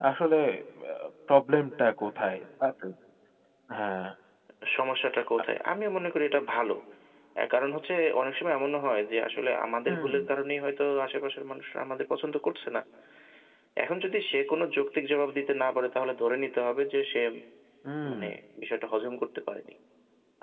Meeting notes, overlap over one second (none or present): none